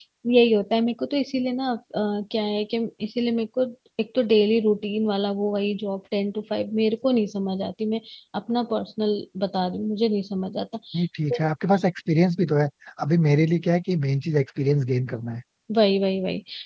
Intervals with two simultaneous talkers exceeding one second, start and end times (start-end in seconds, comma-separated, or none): none